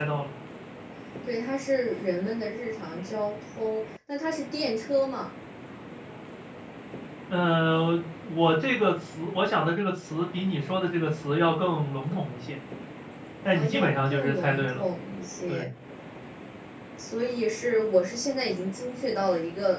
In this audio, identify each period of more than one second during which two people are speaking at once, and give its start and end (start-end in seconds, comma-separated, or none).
13.5-14.8